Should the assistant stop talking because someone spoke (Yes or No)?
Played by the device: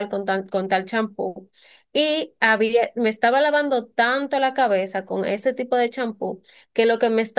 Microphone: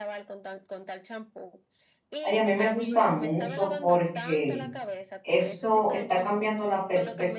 Yes